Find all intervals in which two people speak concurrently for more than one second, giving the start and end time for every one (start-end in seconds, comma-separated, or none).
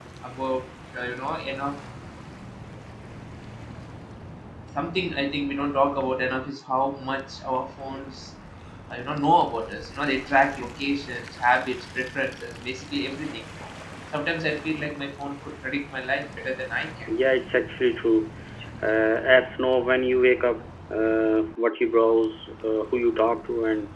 none